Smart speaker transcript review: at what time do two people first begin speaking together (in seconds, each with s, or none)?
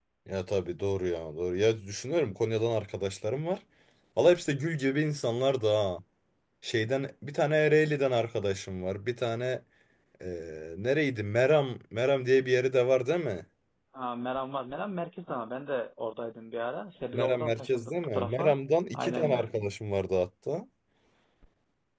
17.1 s